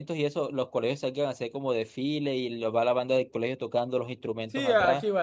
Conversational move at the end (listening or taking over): taking over